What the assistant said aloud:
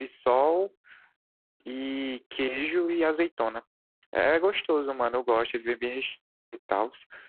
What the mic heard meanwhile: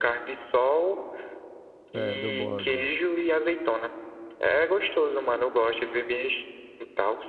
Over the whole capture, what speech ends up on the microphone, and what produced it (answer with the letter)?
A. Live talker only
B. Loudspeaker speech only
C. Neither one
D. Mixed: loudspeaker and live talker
D